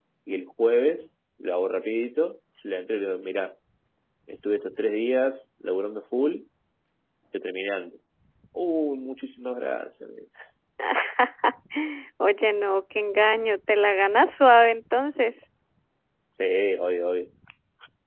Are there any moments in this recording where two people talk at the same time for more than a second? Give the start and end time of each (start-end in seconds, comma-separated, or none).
none